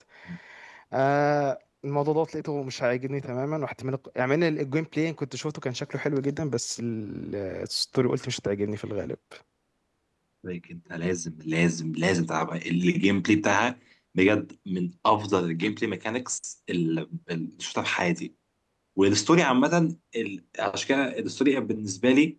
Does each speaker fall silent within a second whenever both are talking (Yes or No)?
Yes